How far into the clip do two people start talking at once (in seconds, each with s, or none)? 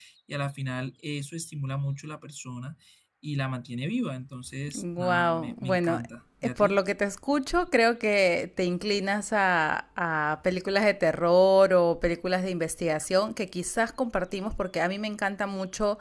4.8 s